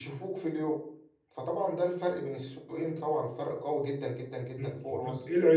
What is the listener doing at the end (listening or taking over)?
taking over